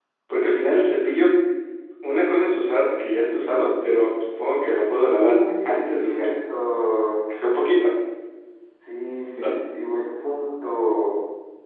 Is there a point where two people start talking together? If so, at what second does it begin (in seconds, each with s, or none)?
5.2 s